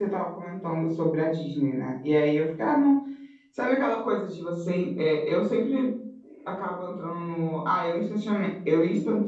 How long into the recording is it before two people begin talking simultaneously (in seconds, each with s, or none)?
none